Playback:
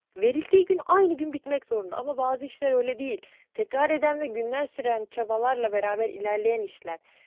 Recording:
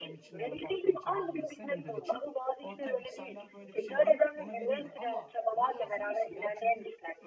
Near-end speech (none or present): present